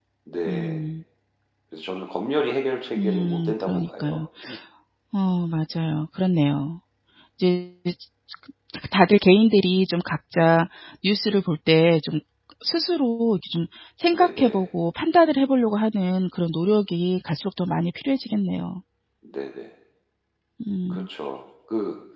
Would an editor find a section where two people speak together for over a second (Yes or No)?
Yes